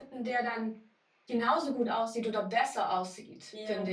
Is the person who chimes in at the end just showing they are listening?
No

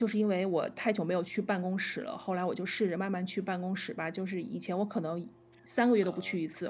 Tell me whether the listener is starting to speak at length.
No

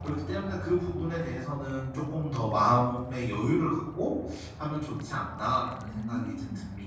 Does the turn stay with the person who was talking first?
No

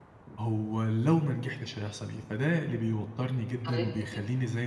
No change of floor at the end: Yes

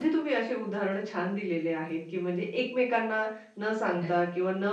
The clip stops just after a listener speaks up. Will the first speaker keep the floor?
Yes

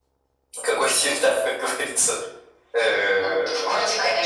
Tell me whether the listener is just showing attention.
No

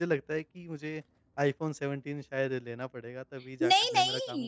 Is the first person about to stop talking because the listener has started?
Yes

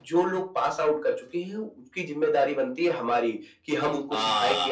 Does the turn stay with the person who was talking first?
Yes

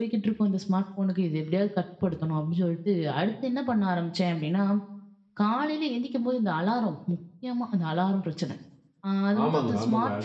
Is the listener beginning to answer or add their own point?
Yes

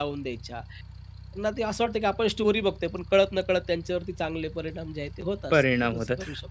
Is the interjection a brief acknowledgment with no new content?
No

